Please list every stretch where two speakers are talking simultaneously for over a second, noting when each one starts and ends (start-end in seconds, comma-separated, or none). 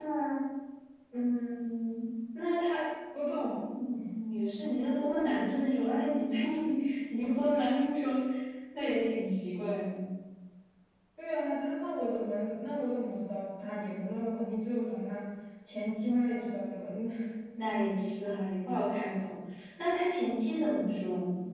none